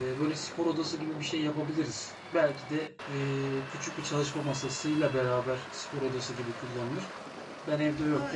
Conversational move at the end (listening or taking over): listening